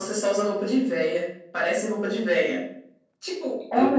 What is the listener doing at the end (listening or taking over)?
listening